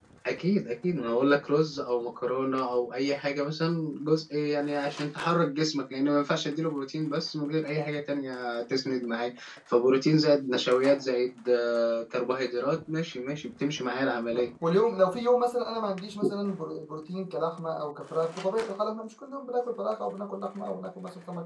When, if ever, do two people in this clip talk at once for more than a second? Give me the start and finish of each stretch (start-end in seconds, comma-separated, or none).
none